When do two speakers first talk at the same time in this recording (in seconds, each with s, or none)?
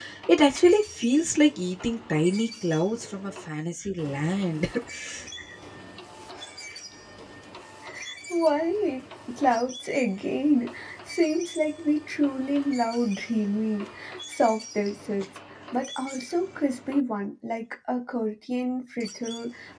none